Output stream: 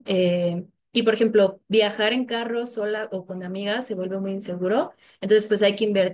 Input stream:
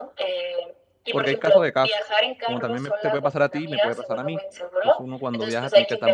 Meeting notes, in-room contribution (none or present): present